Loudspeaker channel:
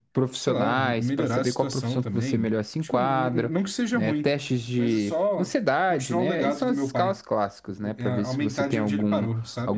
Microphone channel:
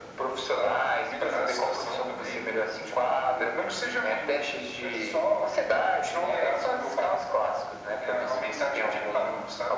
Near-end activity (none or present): none